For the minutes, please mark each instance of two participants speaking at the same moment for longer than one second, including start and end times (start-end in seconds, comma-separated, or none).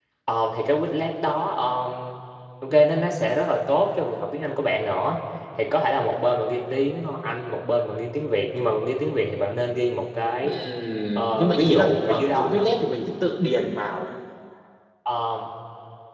11.3-12.7